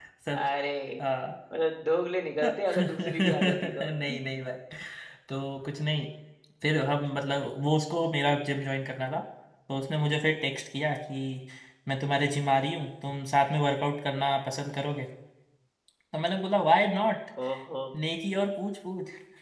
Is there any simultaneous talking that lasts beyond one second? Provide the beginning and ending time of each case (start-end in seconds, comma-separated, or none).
2.4-3.9